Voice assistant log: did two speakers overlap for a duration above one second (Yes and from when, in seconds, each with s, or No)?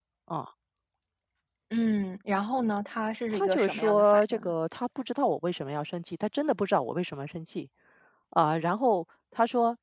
Yes, from 3.3 s